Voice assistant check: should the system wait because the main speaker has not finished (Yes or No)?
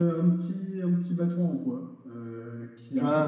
Yes